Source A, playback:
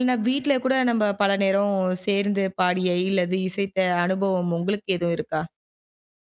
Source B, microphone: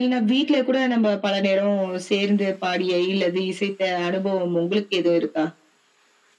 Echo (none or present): present